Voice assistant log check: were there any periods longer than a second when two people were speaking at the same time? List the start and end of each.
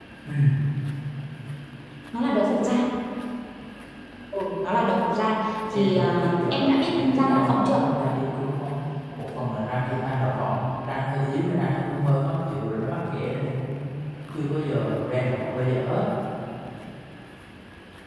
5.7-7.8

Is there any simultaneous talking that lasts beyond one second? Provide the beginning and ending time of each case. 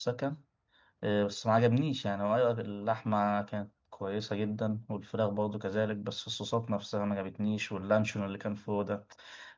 none

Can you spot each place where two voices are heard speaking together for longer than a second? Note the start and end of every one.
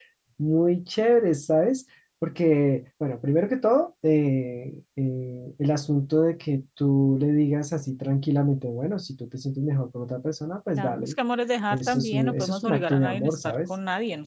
11.7-13.7

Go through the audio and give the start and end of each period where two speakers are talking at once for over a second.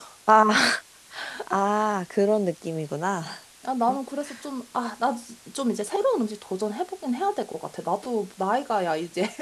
none

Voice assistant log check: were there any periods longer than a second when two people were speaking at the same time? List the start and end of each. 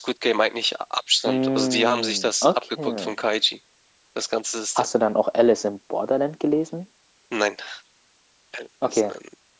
1.3-3.1

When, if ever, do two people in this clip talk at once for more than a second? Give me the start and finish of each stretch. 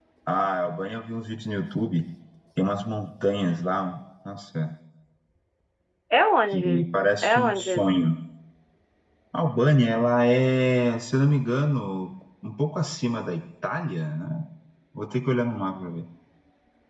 6.5-8.0

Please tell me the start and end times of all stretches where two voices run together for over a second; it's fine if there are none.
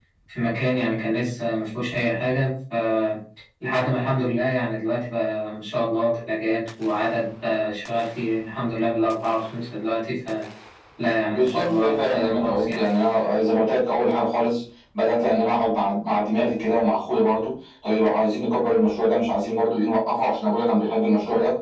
11.3-12.8

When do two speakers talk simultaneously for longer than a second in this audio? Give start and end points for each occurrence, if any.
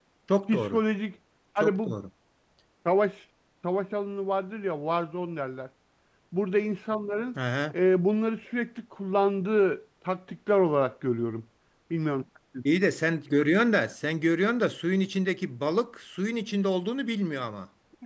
none

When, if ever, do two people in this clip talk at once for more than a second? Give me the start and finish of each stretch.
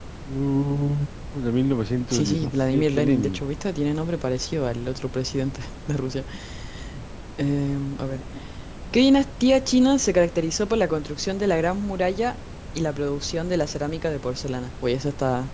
2.1-3.4

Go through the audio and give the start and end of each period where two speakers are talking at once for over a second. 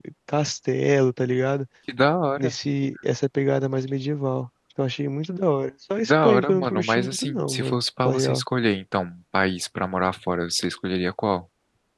6.0-8.4

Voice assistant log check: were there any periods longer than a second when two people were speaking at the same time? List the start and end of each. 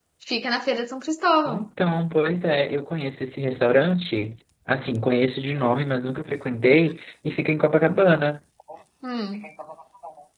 none

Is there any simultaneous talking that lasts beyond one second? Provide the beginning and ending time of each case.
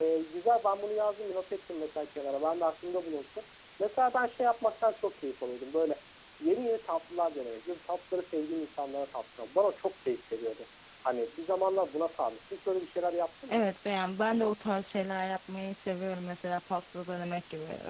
none

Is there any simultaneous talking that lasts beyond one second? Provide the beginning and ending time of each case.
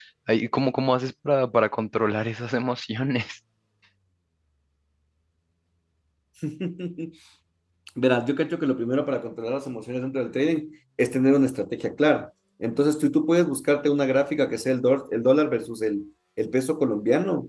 none

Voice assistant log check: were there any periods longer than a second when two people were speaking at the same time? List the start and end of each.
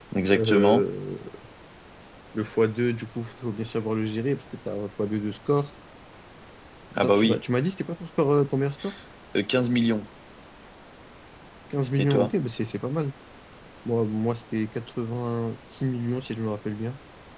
none

